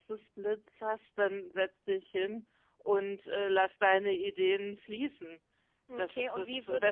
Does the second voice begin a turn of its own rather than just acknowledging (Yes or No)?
Yes